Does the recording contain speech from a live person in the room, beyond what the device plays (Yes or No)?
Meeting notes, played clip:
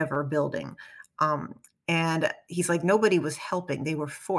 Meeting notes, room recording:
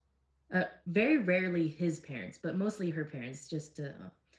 Yes